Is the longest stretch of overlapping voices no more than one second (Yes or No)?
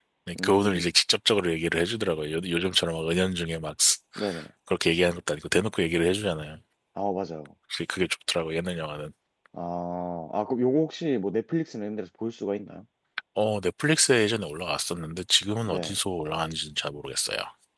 Yes